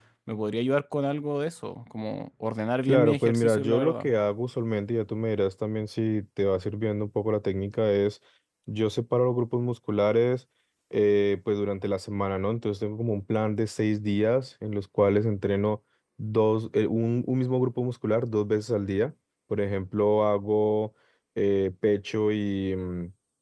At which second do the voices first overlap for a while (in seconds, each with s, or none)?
2.8 s